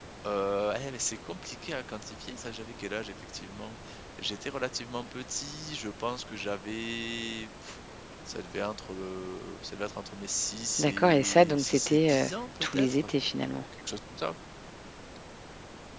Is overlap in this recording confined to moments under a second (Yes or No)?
No